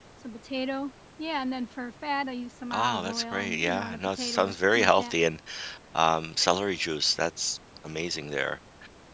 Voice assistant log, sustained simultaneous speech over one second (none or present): present